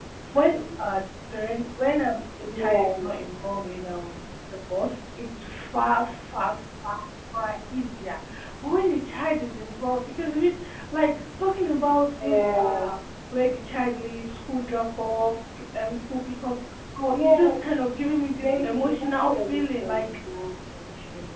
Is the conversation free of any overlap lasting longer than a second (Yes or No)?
No